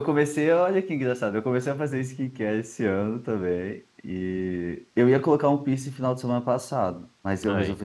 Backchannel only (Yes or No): Yes